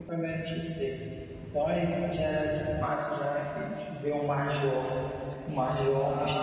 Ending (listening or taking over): taking over